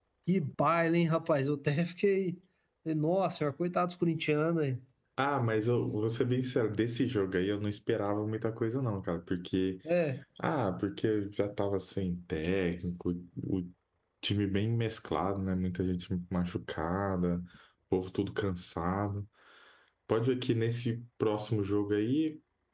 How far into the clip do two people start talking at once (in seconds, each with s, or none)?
none